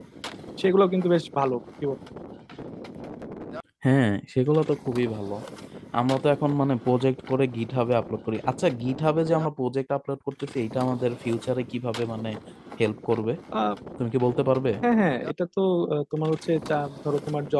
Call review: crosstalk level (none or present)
none